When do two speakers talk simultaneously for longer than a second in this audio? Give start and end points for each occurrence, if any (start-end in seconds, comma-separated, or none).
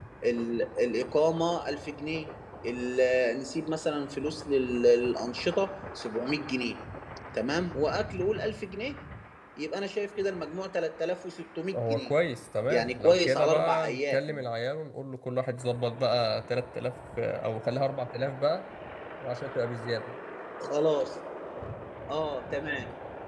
12.7-14.4